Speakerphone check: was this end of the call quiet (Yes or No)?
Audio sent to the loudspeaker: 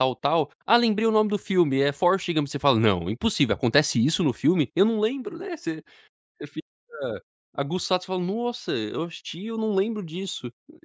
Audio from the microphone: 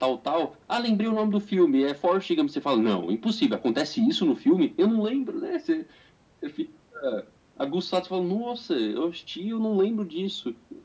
Yes